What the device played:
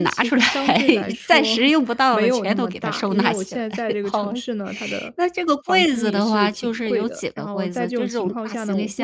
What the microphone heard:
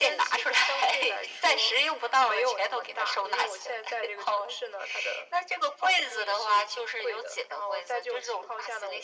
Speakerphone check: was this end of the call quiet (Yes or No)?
Yes